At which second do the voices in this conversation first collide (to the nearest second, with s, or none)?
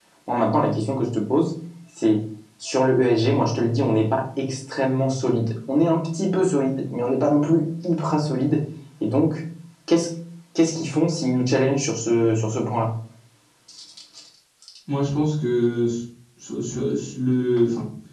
none